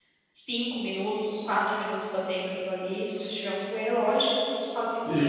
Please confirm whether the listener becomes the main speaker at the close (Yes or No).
Yes